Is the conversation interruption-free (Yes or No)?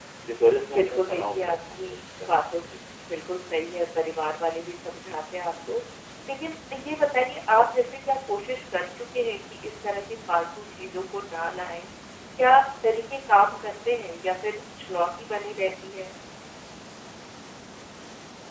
No